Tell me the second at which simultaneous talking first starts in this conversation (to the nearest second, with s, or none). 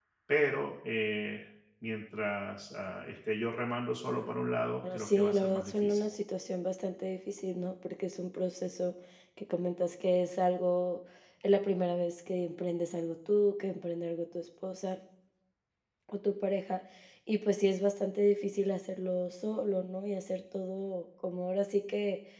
5 s